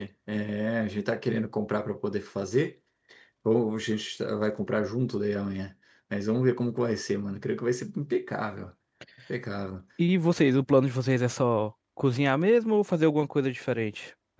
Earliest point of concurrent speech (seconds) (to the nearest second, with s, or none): none